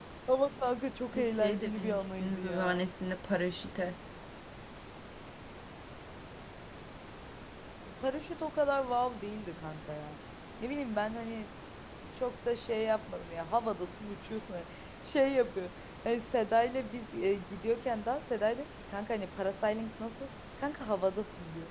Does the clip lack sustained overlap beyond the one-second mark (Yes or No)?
No